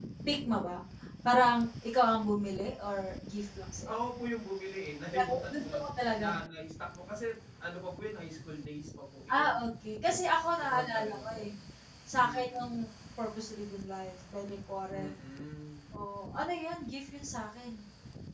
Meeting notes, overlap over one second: present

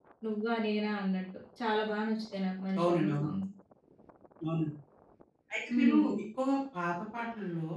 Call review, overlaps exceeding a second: none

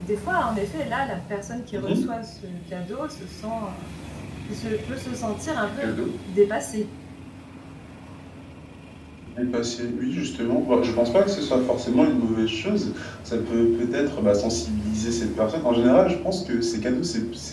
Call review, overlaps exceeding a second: none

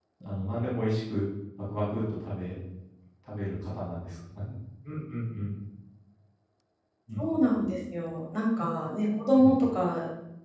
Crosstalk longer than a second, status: none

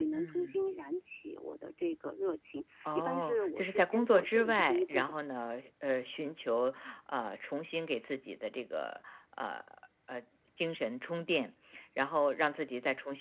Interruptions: present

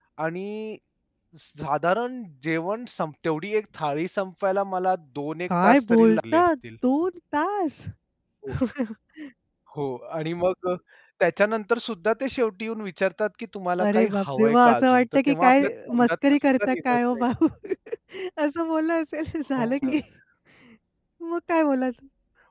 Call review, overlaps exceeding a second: present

